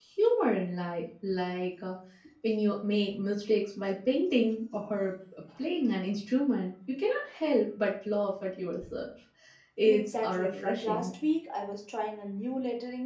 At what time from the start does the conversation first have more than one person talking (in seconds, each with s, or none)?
9.8 s